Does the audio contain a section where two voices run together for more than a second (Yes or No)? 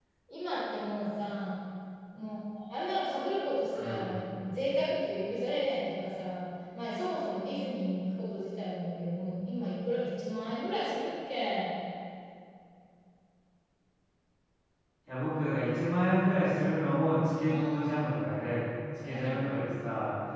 No